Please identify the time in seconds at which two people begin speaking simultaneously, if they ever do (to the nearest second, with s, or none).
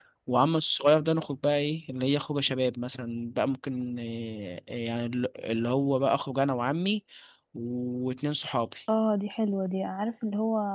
none